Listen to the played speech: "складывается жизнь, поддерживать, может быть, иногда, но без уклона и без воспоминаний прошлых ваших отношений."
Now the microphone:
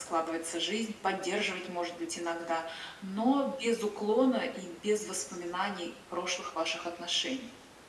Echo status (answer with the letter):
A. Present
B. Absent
A